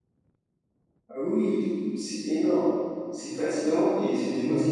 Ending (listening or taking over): taking over